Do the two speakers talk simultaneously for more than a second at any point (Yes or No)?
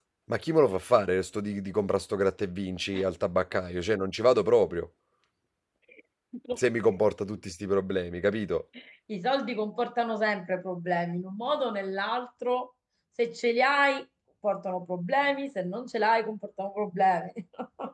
No